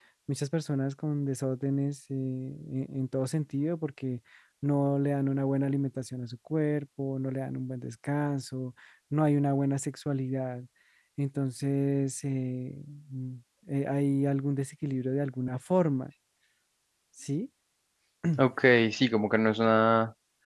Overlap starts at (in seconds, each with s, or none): none